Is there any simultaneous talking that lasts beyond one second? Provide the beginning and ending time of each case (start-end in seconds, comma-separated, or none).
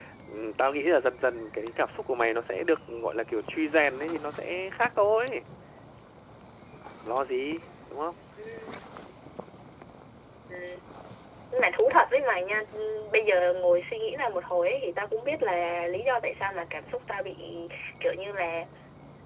none